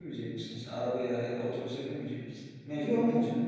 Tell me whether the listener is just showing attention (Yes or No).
No